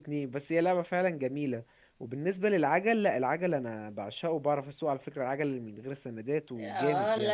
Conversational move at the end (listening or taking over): taking over